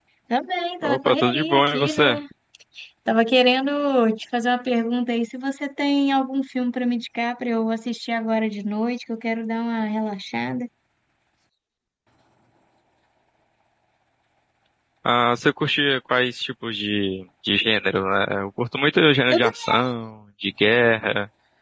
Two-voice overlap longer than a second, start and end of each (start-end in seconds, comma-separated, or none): 0.8-2.2